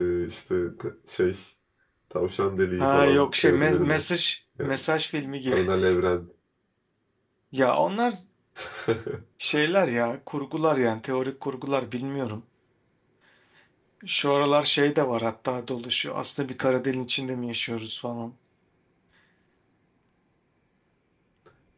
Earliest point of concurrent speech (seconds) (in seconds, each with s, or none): 2.8 s